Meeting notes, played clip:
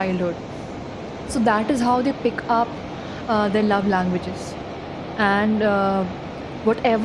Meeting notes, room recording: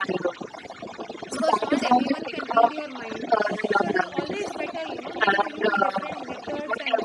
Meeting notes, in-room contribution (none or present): present